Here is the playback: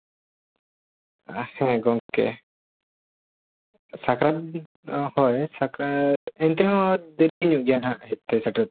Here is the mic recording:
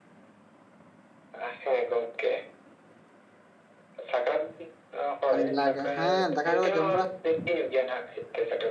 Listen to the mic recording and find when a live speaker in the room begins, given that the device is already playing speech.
5 s

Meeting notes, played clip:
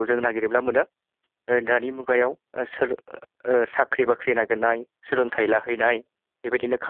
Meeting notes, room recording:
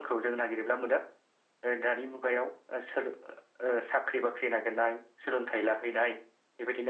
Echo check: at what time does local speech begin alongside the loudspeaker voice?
none

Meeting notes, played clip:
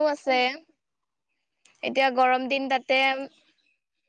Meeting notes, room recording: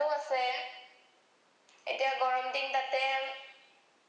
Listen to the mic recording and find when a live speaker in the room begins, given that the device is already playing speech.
none

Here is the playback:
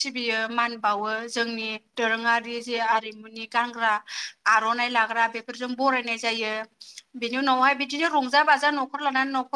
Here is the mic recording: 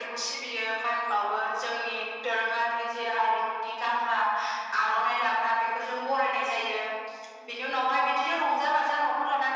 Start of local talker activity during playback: none

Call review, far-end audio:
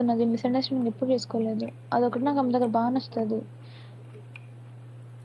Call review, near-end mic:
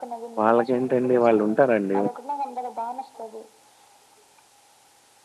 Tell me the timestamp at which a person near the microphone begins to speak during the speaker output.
0 s

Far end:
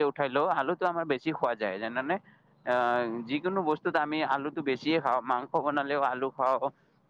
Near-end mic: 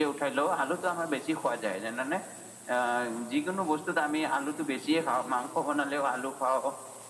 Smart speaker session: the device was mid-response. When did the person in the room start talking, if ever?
none

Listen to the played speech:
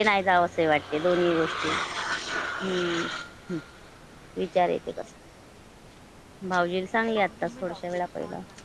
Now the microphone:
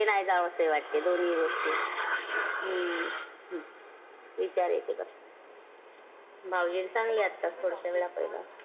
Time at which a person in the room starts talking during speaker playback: none

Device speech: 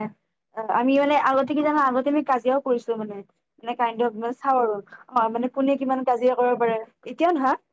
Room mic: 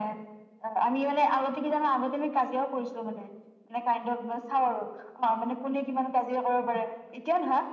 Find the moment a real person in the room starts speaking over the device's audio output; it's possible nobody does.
none

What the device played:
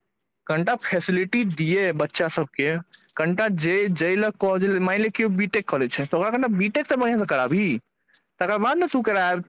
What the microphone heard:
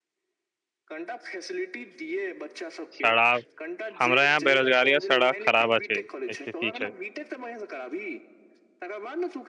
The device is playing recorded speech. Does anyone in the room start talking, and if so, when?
3 s

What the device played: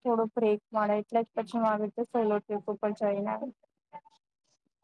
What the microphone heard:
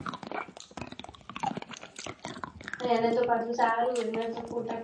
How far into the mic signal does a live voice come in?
3 s

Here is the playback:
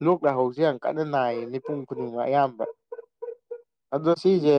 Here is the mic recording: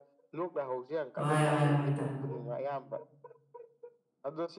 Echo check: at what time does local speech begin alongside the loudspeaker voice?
1 s

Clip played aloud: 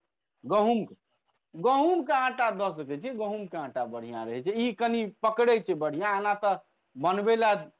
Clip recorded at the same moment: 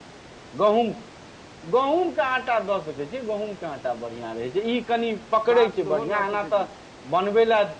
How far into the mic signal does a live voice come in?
5 s

